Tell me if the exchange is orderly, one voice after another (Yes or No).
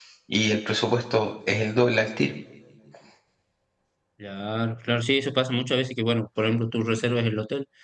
Yes